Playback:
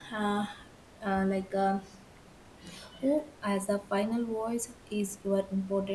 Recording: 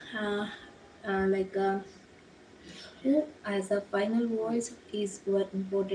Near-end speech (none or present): present